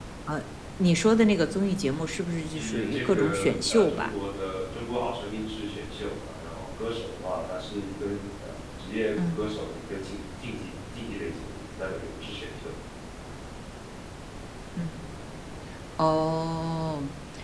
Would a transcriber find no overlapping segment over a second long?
No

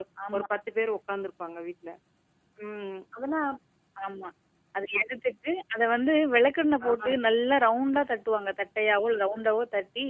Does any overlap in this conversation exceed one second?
No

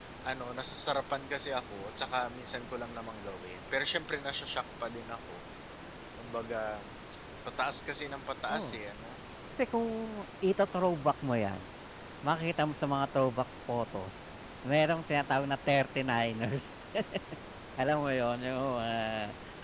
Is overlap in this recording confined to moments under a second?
Yes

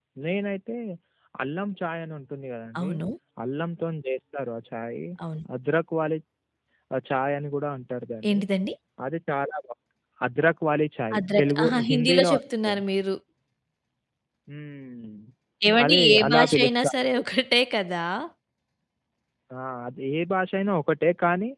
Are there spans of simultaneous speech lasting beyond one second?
Yes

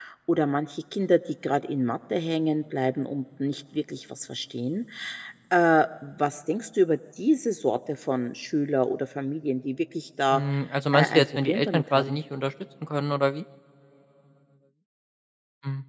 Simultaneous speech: Yes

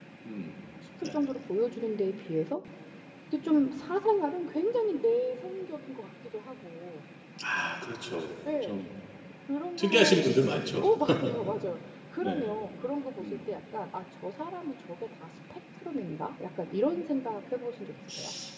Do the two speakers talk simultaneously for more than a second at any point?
No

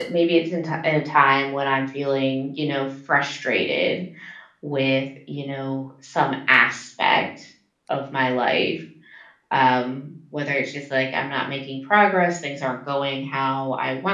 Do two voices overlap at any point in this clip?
No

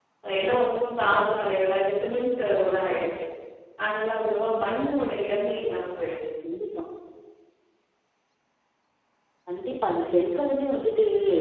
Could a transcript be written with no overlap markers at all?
Yes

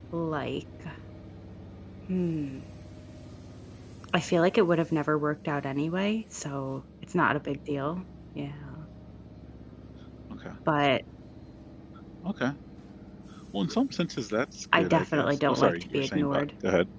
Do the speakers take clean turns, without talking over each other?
No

